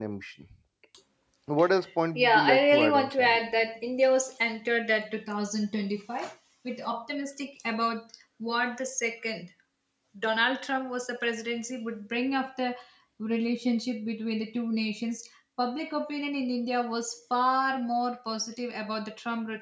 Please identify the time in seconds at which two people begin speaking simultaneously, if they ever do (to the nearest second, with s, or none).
2 s